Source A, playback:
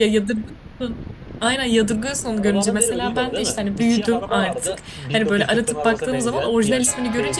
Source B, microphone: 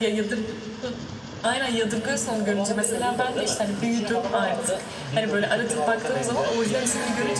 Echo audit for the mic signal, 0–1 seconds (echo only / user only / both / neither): echo only